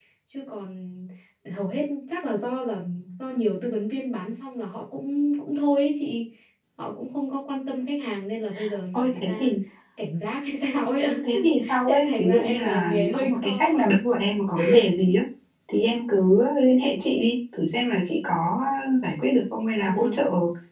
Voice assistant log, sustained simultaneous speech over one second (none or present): present